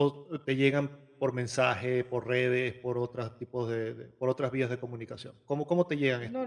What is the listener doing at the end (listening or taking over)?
taking over